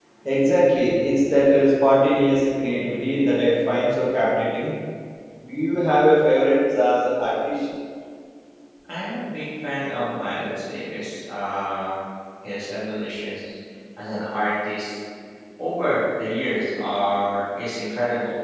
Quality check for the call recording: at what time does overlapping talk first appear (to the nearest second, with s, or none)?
none